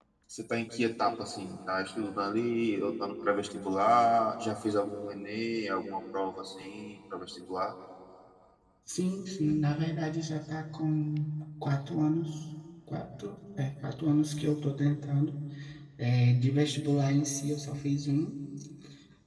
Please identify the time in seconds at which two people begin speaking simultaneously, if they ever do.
none

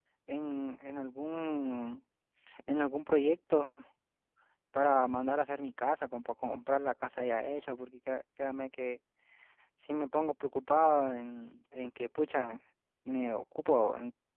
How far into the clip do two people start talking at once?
none

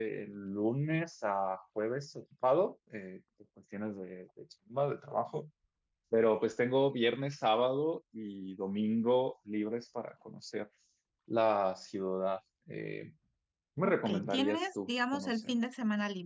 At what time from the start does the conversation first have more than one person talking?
13.8 s

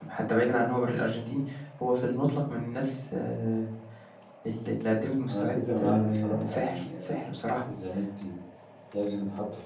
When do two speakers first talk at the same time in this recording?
5.3 s

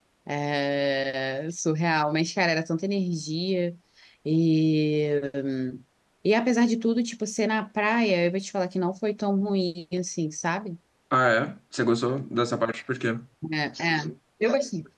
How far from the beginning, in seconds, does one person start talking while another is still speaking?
none

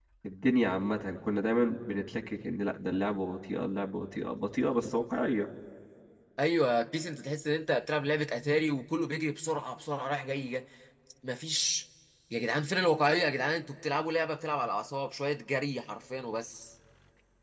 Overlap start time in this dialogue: none

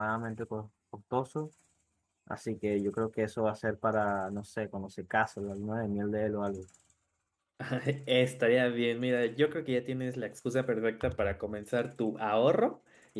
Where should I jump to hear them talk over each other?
none

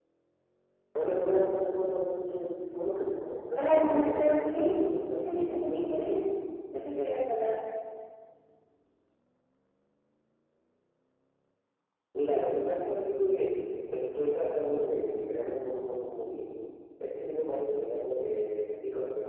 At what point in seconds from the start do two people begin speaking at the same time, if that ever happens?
3.5 s

